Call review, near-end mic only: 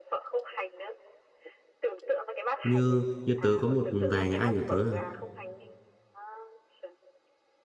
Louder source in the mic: user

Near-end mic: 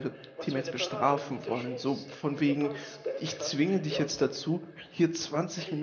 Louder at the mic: user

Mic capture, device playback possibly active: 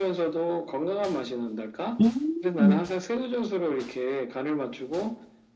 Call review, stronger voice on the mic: user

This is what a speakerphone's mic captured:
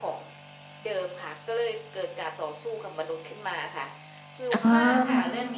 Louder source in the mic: user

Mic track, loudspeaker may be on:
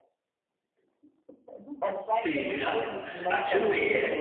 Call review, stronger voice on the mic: user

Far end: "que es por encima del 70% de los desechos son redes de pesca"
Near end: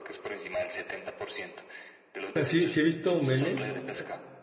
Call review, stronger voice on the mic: user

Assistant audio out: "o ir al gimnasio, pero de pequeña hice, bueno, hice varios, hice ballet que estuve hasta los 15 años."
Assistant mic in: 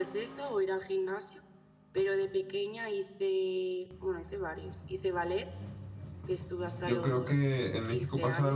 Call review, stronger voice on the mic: user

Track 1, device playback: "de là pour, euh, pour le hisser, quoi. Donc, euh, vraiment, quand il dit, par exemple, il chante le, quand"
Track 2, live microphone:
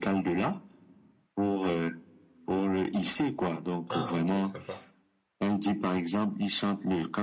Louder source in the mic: echo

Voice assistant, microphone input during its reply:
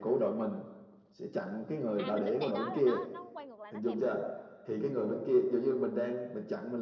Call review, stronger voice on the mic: echo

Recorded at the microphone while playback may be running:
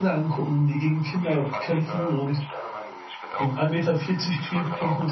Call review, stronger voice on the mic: user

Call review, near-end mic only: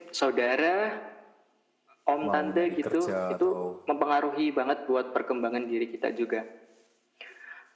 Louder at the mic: echo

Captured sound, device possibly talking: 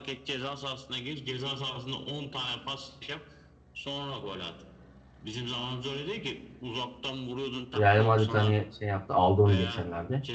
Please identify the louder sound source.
user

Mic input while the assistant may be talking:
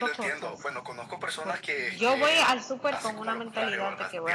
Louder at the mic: user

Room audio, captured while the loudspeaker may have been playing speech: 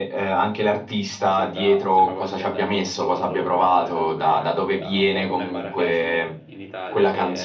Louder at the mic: echo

